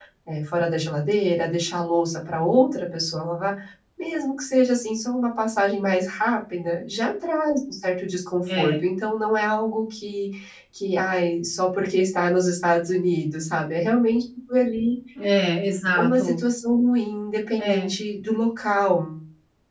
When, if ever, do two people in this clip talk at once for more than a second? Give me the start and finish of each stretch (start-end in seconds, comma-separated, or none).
none